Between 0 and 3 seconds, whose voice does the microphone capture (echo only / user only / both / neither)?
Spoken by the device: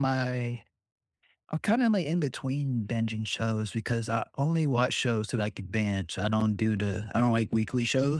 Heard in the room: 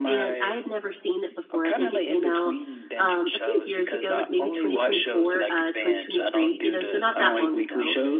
both